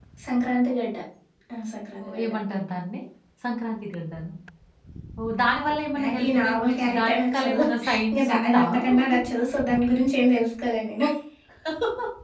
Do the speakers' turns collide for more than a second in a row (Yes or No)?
Yes